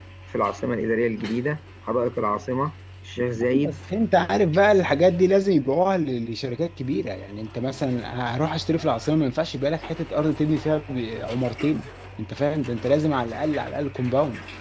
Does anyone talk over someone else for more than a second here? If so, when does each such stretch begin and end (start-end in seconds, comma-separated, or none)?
none